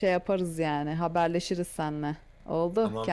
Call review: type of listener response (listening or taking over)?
taking over